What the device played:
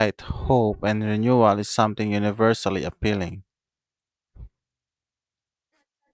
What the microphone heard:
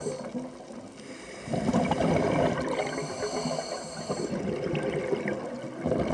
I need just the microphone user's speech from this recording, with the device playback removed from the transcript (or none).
none